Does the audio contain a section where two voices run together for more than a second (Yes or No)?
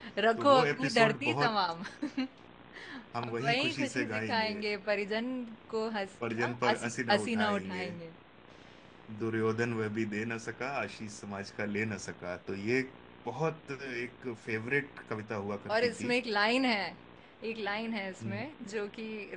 Yes